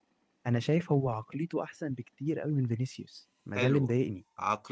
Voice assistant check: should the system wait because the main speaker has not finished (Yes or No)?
No